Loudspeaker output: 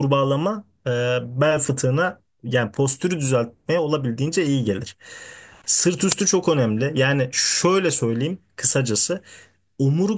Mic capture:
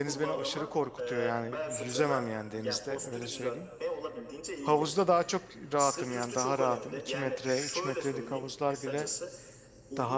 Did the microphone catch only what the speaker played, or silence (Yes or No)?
No